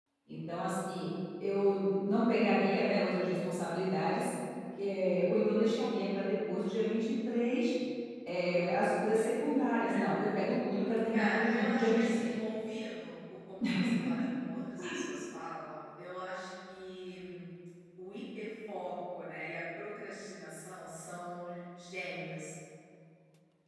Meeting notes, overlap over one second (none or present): present